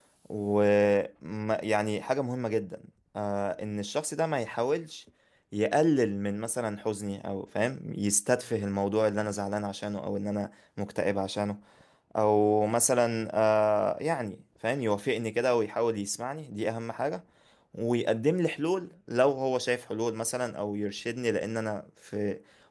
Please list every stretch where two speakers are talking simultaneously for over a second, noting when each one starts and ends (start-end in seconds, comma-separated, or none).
none